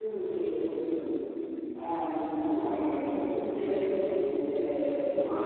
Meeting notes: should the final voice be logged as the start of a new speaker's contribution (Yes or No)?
Yes